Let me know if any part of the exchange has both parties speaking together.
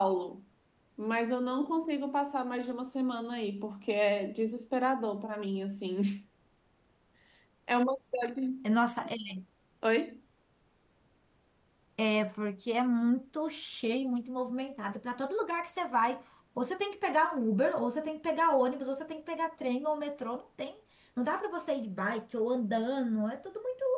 No

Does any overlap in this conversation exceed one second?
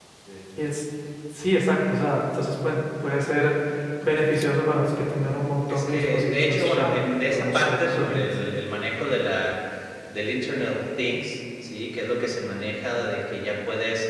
Yes, from 5.7 s

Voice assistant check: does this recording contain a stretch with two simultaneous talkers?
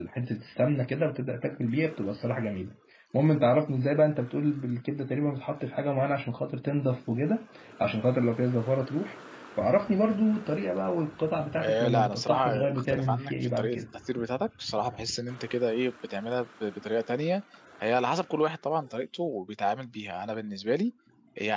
Yes, from 11.5 s

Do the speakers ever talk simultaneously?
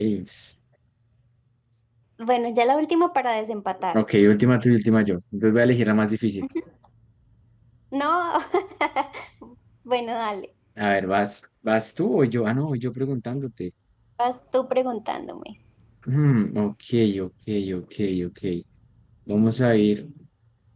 No

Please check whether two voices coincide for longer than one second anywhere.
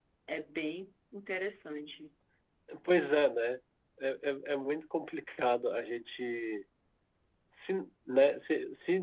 No

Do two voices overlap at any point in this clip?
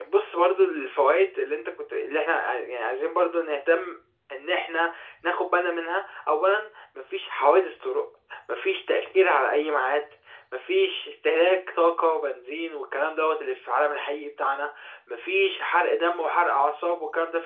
No

